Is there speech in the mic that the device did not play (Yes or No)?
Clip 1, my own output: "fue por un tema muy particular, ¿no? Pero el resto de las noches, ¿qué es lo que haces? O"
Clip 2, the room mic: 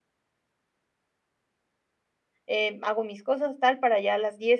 Yes